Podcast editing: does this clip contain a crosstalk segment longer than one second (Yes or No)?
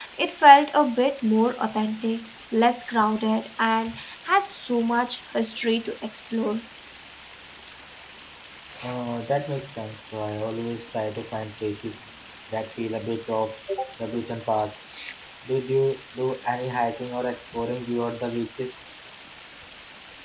No